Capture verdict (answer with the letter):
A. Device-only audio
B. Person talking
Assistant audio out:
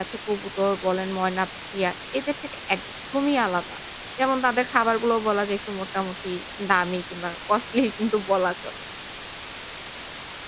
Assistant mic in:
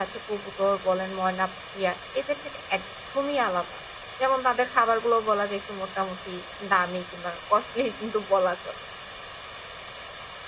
A